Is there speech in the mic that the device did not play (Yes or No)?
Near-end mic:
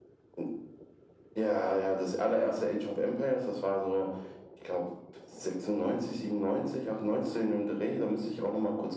No